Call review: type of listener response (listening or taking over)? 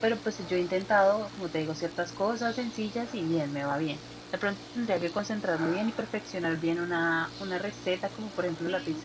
listening